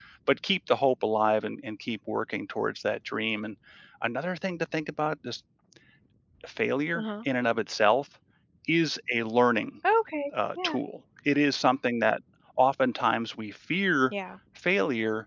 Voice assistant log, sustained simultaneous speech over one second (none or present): none